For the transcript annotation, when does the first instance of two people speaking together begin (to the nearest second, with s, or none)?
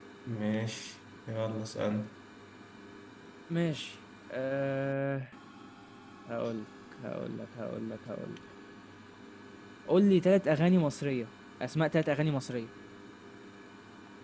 none